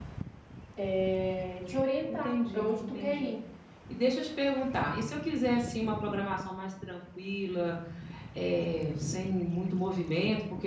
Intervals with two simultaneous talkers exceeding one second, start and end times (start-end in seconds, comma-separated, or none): 2.1-3.3